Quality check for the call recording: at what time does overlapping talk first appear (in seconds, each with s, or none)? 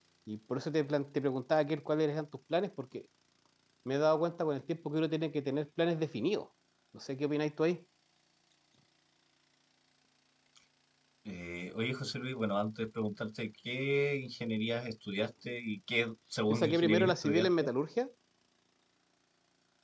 16.5 s